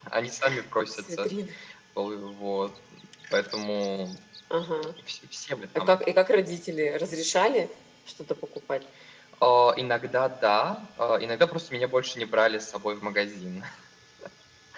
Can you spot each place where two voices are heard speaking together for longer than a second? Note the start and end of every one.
none

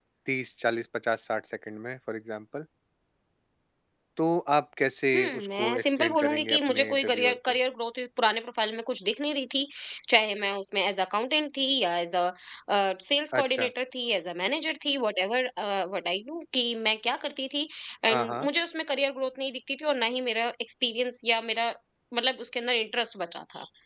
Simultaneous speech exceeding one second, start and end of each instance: 5.1-7.6

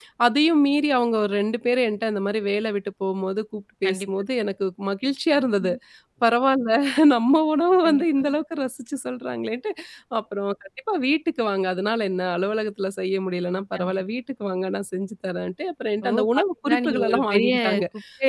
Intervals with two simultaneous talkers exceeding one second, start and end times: 16.1-17.5

